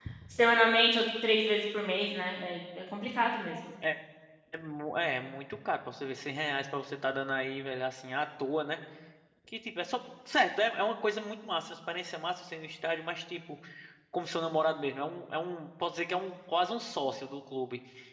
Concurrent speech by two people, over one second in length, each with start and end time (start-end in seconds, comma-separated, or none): none